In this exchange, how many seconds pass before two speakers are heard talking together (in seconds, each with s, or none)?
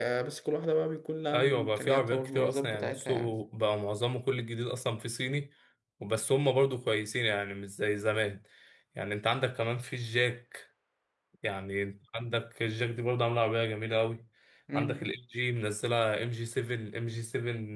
1.2 s